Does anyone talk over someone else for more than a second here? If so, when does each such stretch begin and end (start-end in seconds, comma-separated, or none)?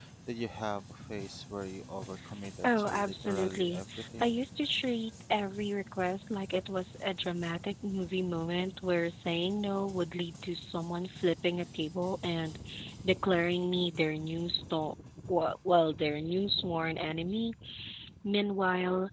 2.6-4.3